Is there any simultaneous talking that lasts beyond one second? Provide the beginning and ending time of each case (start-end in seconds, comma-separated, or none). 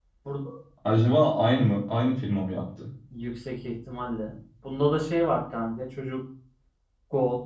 none